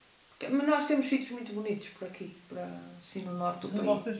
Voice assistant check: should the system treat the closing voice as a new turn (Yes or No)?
Yes